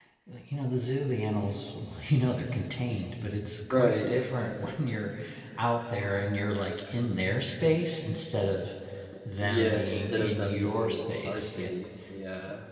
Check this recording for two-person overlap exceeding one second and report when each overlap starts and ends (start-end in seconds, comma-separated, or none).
9.4-11.7